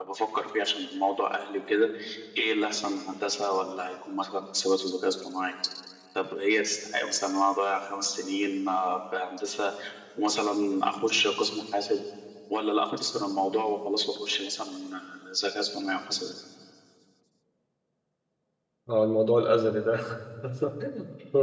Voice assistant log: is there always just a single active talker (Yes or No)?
Yes